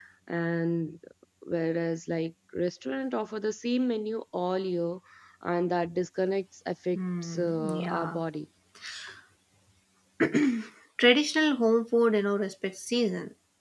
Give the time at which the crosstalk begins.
7.0 s

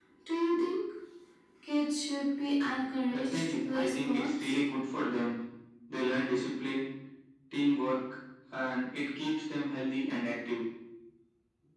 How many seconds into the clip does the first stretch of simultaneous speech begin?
3.1 s

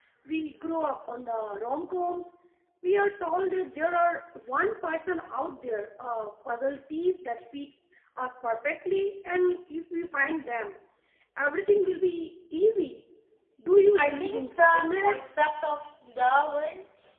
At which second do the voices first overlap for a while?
14.0 s

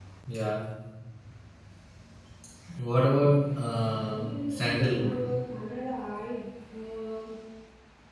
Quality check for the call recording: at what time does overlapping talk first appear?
3.8 s

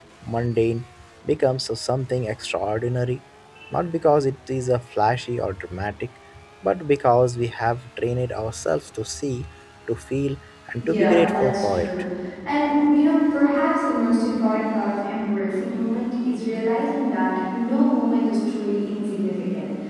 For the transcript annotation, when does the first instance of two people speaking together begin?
10.8 s

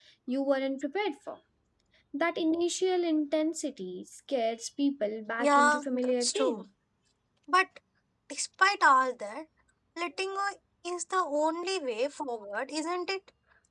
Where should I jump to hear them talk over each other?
5.4 s

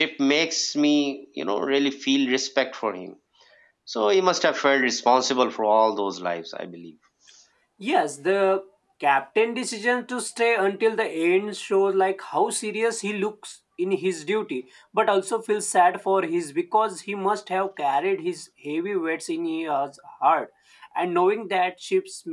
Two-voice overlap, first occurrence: none

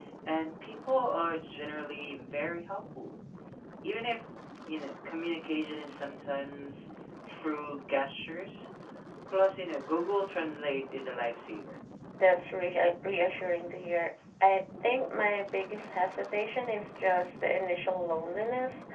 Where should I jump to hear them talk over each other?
none

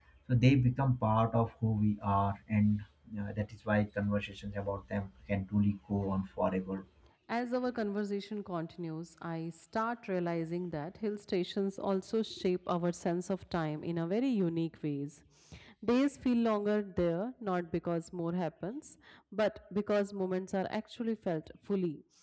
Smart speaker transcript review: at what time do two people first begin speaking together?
none

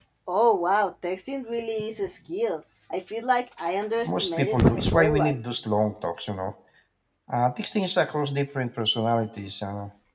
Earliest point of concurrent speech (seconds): 4.0 s

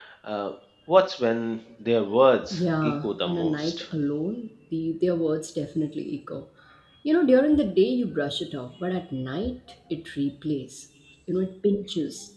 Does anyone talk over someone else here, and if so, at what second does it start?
2.4 s

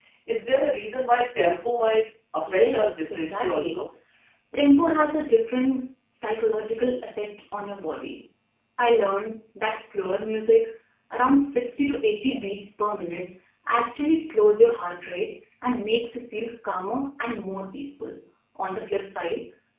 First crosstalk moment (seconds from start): 2.5 s

